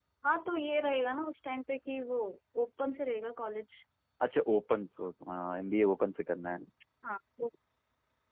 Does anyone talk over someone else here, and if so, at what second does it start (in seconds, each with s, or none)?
none